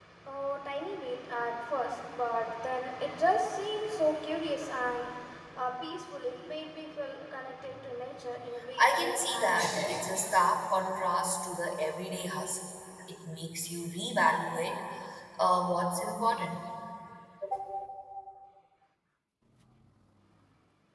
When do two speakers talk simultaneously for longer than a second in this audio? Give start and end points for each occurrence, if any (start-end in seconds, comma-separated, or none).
8.8-10.0